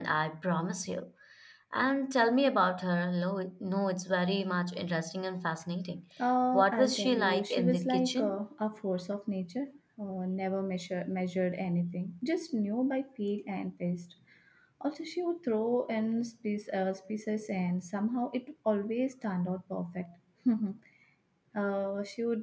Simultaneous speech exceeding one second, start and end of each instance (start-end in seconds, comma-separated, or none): 6.5-8.4